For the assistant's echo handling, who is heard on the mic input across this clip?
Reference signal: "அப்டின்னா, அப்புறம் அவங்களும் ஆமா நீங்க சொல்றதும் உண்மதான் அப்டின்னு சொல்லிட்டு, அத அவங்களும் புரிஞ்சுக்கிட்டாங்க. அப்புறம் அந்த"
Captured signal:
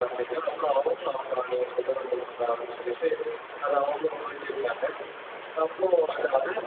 echo only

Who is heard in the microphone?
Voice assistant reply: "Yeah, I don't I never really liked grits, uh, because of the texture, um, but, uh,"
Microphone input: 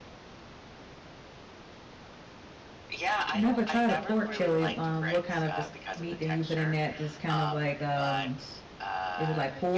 both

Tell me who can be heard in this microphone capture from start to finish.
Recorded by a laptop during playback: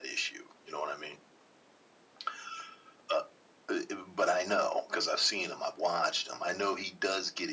echo only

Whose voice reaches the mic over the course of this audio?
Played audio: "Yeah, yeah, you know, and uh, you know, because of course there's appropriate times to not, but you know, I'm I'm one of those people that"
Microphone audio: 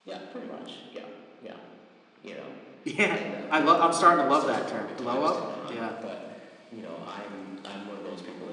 both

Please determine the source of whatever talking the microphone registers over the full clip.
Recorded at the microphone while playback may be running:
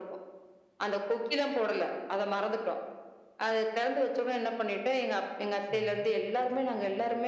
both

